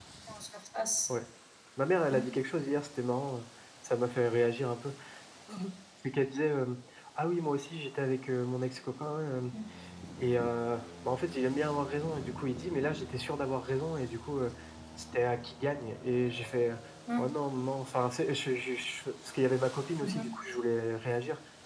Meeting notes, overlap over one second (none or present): none